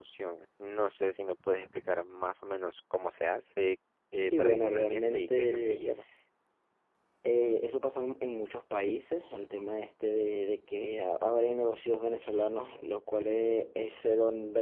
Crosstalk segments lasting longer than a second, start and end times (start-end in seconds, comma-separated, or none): 4.2-5.8